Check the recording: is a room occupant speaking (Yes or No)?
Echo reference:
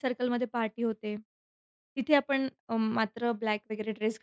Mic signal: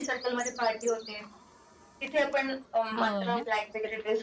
Yes